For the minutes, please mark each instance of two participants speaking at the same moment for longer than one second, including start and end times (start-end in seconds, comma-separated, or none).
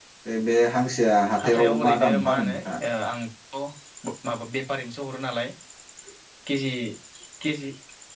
1.4-2.8